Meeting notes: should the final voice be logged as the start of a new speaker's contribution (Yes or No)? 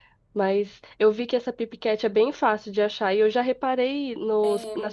No